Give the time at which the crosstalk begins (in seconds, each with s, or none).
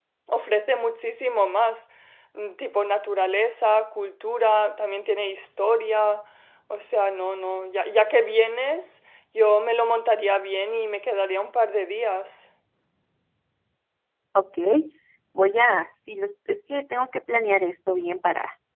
none